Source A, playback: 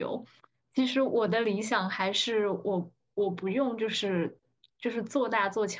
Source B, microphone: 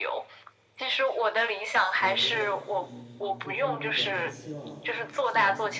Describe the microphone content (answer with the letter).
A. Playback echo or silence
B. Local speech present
B